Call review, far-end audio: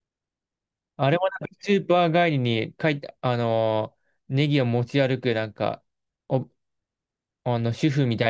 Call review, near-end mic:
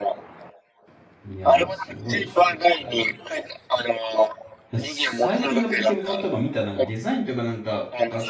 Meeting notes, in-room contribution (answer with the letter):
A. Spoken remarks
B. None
A